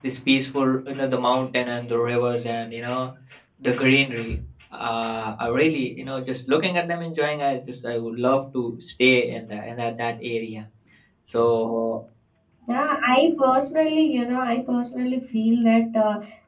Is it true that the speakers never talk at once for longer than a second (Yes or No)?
Yes